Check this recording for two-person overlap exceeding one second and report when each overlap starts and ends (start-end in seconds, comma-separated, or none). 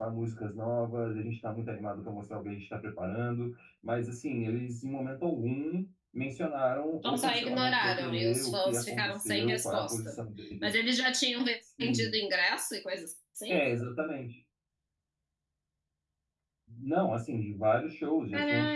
7.0-10.2